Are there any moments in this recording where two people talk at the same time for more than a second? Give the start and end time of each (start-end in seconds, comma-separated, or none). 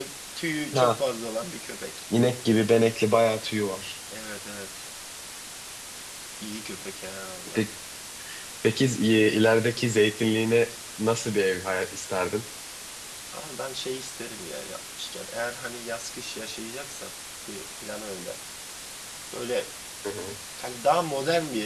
none